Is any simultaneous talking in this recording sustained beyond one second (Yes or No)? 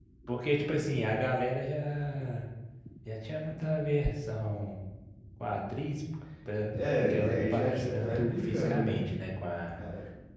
Yes